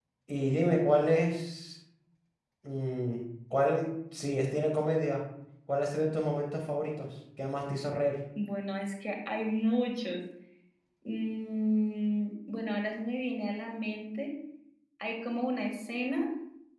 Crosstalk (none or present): none